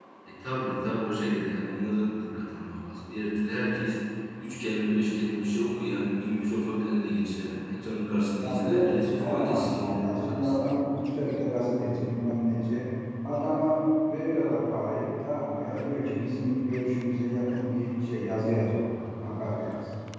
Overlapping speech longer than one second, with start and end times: 8.4-10.6

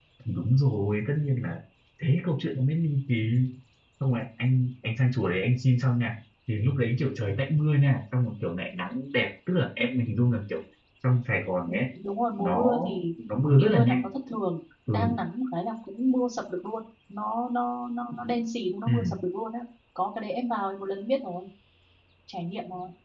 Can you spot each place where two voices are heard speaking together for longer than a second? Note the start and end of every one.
none

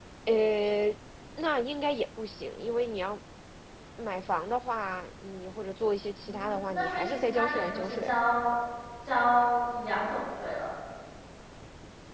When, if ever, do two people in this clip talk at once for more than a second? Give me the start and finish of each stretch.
6.2-8.1

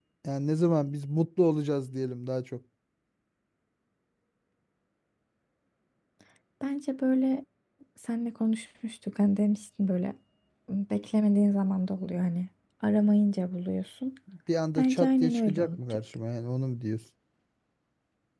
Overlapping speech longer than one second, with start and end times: 14.8-16.0

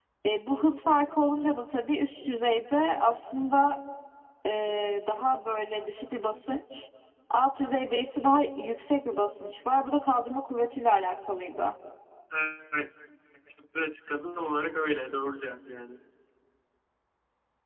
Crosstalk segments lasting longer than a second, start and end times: none

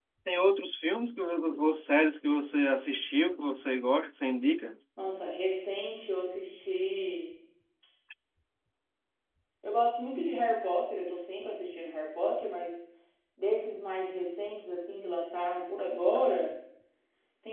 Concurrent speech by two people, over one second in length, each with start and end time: none

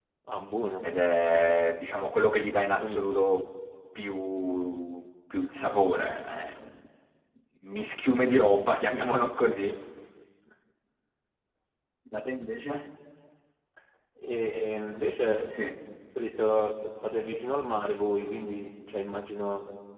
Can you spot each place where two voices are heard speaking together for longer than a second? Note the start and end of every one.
none

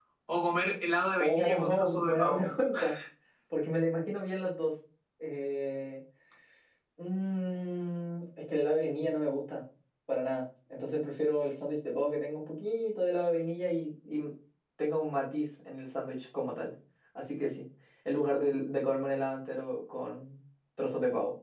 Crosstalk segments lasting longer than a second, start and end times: 1.2-2.4

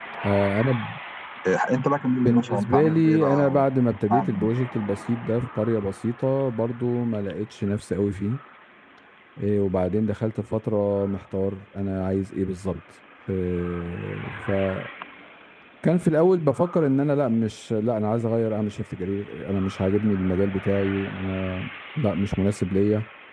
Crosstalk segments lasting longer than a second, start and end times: 2.2-3.6

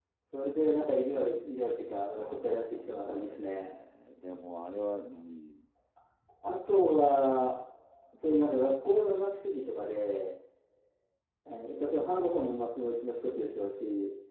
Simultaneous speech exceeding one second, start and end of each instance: 2.1-3.7

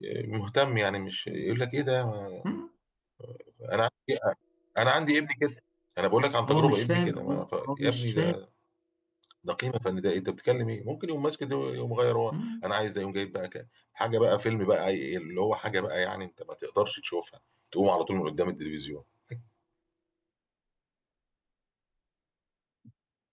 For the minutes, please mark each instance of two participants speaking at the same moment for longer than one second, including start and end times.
6.4-8.4

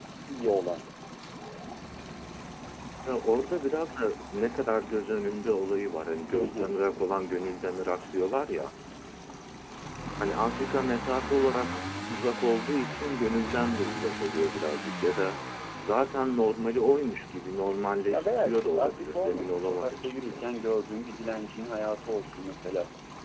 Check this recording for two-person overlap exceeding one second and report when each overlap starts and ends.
18.1-20.4

